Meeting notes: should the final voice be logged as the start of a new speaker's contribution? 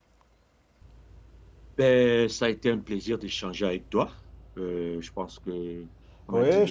Yes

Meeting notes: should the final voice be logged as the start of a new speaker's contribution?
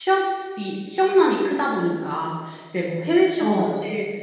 No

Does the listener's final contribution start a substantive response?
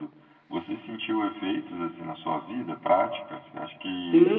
Yes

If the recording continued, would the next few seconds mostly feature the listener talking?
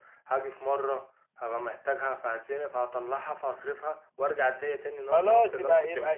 Yes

